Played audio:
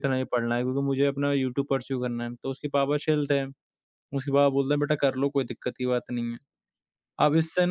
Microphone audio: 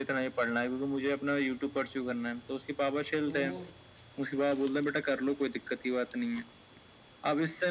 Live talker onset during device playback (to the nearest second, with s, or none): 3 s